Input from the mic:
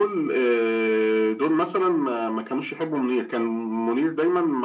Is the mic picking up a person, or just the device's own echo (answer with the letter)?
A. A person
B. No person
B